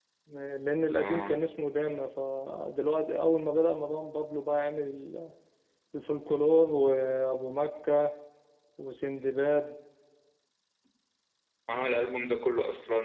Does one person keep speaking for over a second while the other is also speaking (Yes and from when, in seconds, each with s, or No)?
No